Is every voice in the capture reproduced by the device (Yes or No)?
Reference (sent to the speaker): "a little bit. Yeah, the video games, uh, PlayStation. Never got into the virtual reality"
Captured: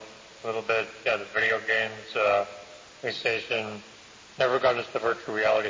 Yes